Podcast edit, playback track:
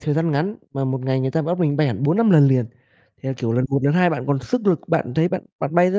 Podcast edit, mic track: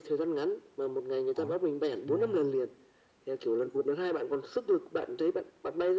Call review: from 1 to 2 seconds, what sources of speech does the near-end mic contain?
both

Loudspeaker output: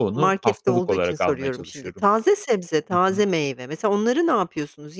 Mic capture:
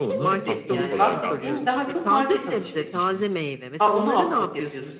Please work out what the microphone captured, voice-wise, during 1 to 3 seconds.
both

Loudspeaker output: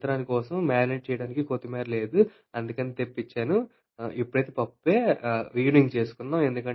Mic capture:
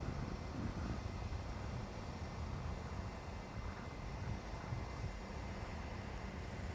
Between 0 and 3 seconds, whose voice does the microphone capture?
neither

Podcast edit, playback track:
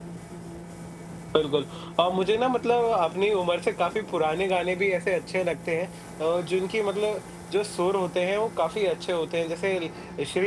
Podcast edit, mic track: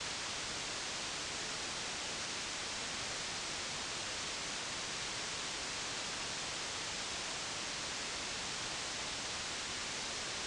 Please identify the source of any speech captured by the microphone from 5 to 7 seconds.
neither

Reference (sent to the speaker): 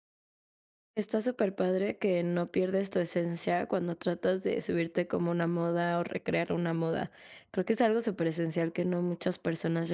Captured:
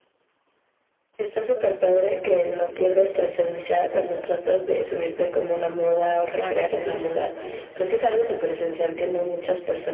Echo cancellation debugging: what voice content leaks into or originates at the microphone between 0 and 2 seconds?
echo only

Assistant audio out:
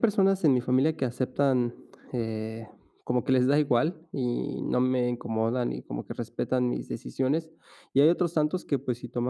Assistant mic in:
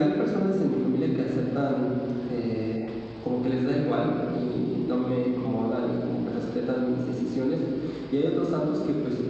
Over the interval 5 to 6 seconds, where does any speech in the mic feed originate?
echo only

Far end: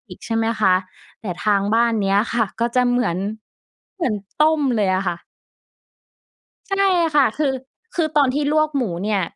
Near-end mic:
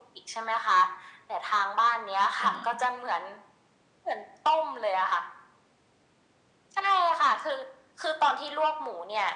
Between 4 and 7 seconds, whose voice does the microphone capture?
echo only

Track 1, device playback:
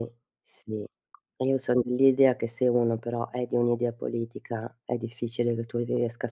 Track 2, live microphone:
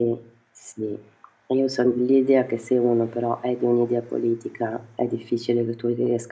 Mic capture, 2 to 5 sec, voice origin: echo only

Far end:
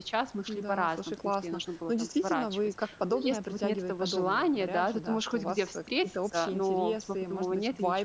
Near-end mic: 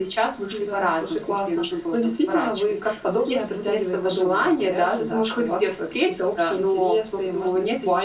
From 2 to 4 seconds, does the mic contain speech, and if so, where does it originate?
echo only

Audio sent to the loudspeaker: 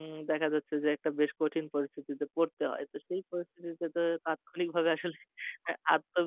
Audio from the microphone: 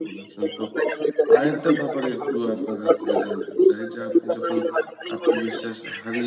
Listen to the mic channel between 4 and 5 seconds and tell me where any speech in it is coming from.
both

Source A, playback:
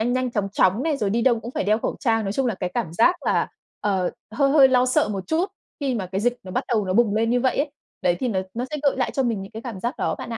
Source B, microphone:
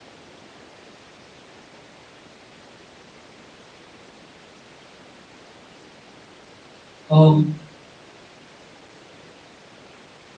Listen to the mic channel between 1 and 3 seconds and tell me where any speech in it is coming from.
neither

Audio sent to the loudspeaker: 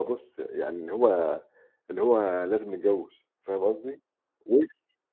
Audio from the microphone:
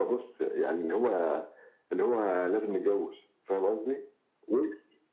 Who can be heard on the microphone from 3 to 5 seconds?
echo only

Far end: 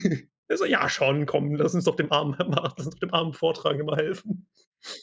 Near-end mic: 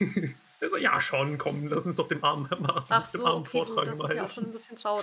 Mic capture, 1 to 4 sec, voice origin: both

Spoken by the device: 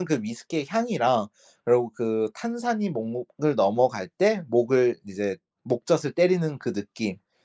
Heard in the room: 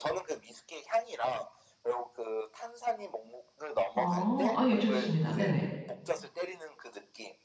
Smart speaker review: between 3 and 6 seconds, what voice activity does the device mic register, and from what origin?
both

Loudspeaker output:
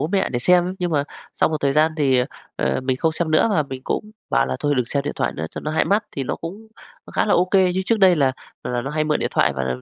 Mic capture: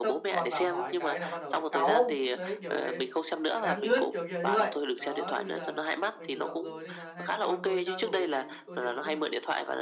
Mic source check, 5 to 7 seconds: both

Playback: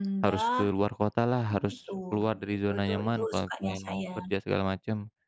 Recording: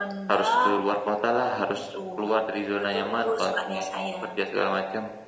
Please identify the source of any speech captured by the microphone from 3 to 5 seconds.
echo only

